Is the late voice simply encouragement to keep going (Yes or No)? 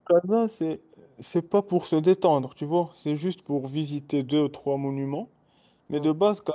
Yes